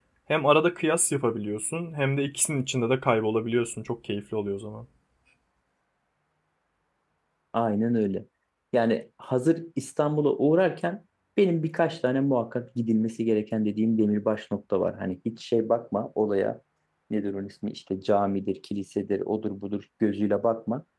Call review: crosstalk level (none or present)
none